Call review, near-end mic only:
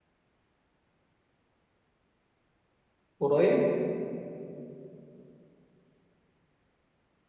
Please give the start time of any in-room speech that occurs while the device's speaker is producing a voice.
3.2 s

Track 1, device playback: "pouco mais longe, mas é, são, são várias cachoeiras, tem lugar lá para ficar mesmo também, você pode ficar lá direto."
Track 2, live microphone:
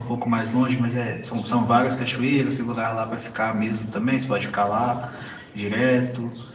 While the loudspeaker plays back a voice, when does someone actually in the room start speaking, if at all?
none

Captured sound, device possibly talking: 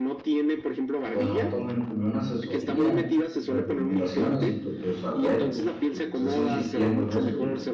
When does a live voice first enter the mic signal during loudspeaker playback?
1.1 s

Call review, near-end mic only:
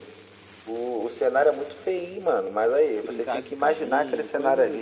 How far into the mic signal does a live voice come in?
3.0 s

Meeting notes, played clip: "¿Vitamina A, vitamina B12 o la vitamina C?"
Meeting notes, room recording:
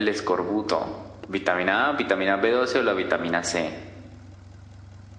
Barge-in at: none

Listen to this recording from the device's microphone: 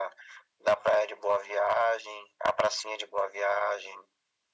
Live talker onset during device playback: none

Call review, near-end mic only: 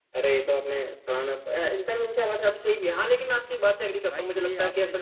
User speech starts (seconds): 4.1 s

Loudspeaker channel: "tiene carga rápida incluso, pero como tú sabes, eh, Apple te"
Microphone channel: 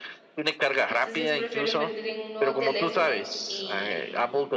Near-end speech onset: 0.8 s

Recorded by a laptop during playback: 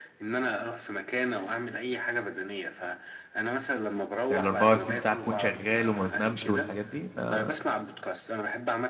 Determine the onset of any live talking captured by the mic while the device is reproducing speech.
4.3 s

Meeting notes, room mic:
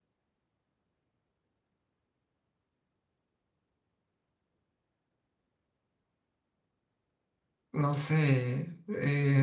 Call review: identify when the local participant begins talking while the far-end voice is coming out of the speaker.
7.7 s

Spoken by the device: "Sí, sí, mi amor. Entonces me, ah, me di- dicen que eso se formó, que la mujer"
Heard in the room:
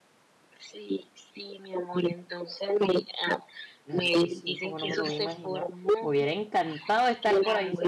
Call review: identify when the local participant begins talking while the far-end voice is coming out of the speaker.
3.8 s

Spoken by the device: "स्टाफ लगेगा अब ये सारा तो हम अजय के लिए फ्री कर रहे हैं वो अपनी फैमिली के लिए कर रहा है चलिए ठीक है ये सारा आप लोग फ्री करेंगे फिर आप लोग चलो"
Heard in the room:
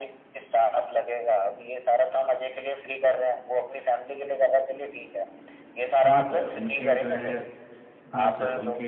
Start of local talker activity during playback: 6.0 s

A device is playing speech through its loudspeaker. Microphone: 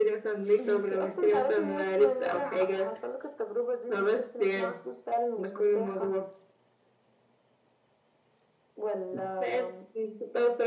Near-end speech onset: none

